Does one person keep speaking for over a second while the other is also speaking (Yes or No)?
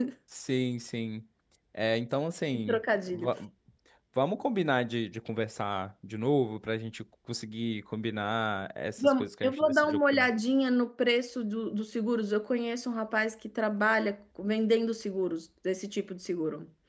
Yes